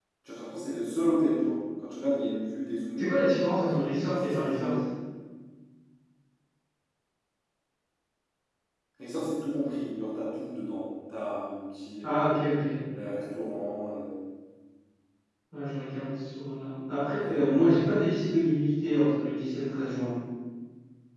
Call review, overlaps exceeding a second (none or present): present